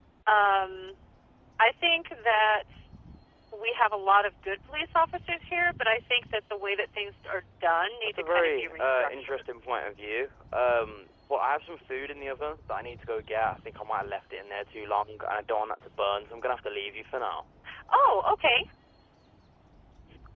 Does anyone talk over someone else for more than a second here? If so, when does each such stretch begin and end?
8.0-9.4

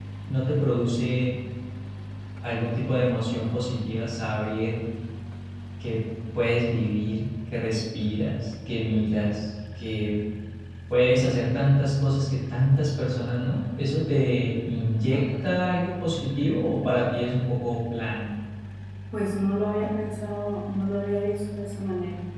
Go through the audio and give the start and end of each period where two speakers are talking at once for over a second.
none

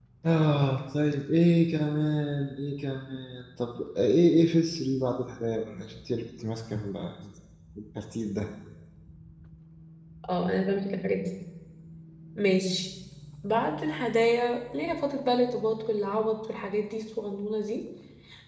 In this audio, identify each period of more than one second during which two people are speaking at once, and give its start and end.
none

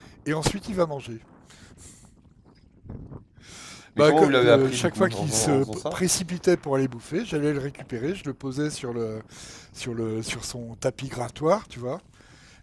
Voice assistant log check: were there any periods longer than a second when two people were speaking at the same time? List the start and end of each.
4.0-6.0

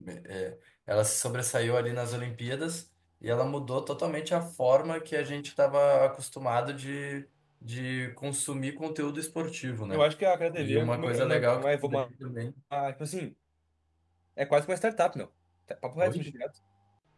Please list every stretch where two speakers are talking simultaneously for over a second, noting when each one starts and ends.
10.6-12.1

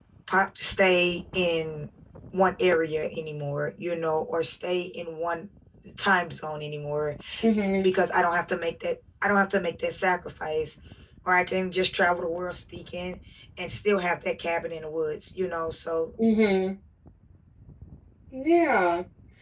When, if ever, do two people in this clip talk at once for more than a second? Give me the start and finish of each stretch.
none

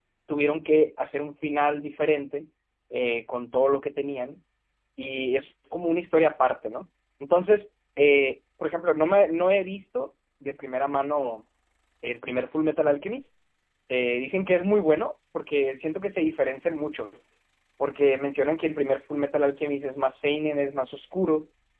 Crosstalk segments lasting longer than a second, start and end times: none

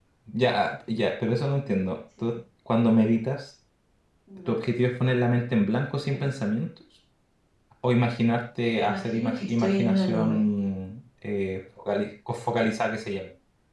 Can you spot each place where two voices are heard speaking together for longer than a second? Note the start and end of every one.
8.7-10.4

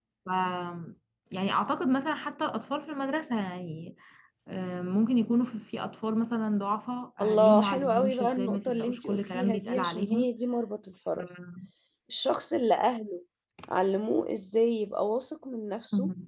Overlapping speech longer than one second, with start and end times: 7.2-10.3

